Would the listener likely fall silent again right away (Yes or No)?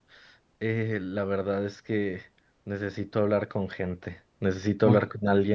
Yes